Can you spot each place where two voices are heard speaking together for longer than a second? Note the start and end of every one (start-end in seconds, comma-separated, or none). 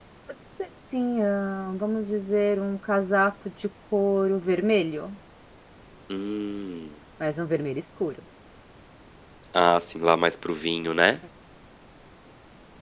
none